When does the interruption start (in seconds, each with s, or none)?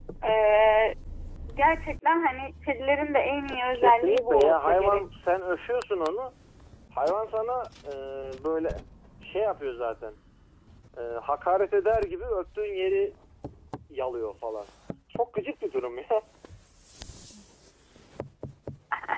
3.7 s